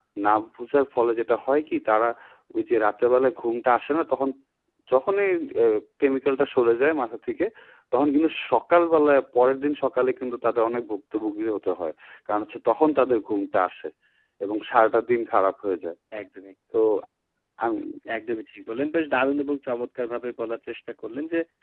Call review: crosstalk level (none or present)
none